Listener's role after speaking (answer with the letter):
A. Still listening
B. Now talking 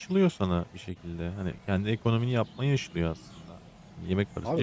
B